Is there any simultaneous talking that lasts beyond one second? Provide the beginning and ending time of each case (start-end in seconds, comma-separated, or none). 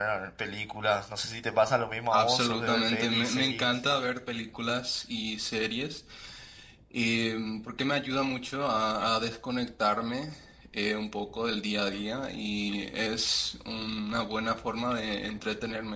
2.1-3.7